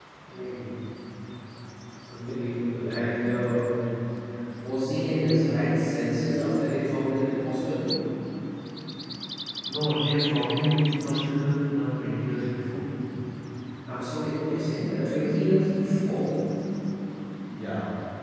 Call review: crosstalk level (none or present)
none